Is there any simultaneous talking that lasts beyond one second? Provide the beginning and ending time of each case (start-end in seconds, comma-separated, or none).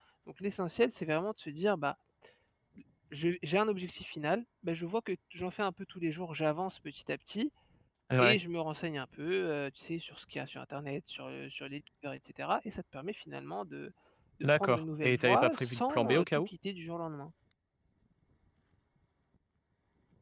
14.5-16.5